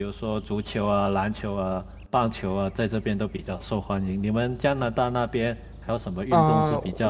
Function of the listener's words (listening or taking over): taking over